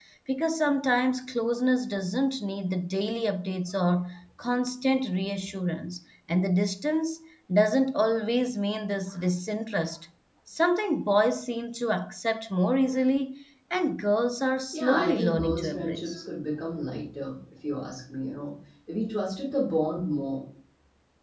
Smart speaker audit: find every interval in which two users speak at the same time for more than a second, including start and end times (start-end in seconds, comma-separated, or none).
14.7-16.2